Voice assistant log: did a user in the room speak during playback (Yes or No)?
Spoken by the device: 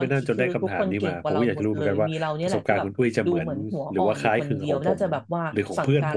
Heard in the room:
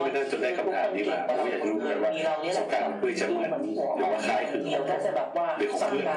Yes